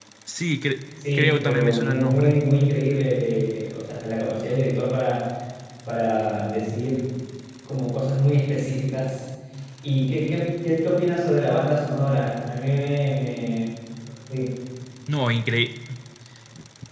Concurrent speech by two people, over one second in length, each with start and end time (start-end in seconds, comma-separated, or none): 1.1-2.4